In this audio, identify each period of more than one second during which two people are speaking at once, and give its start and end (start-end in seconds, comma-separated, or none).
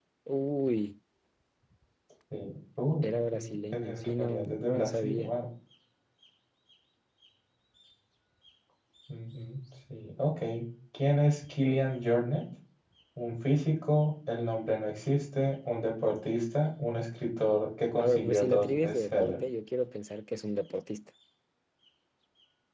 3.0-5.3, 18.0-19.4